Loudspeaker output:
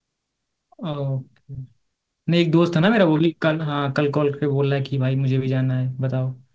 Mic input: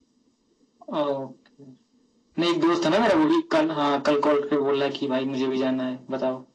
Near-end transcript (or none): none